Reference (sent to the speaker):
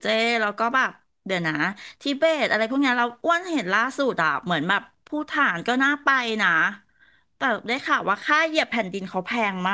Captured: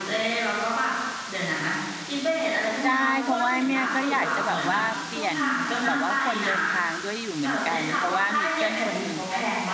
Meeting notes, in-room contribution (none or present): present